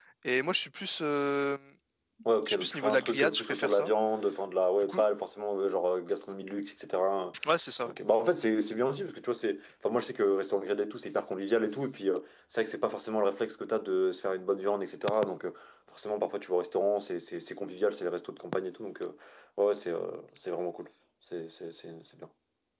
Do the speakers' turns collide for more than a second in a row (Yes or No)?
Yes